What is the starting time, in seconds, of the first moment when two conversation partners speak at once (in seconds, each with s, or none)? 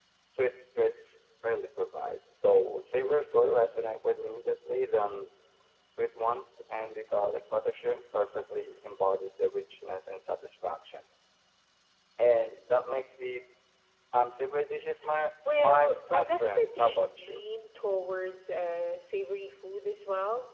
15.4 s